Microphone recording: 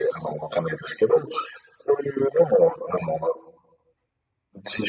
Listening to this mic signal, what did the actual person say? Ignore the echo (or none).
none